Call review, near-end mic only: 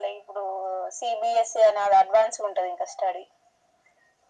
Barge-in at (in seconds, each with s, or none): none